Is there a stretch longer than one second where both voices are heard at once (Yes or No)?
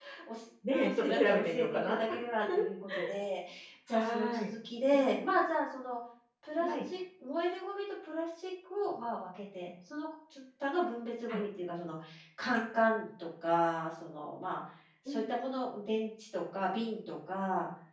Yes